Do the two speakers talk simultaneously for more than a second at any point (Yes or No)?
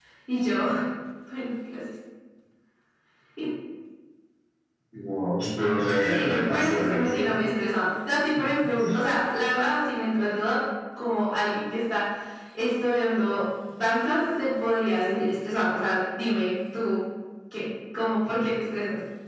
Yes